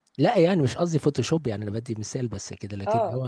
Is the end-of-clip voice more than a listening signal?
Yes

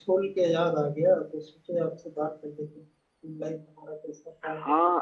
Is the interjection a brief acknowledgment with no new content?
No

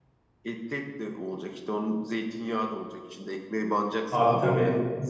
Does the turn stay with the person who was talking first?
No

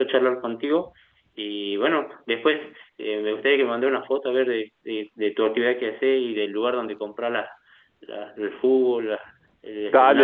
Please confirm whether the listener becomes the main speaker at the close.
Yes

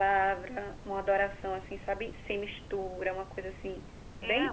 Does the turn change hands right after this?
Yes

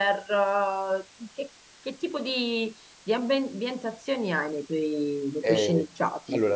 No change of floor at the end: No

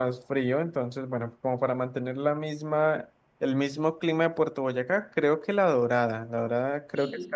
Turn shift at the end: Yes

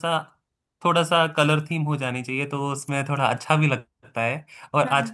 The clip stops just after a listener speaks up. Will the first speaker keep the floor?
Yes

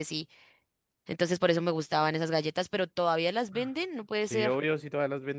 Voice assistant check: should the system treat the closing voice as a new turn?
Yes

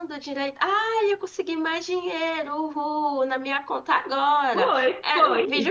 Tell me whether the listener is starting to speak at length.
Yes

